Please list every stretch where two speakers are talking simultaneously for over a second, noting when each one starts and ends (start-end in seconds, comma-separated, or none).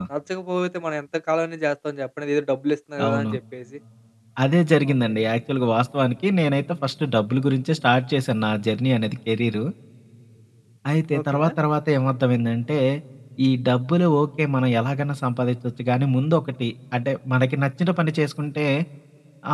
none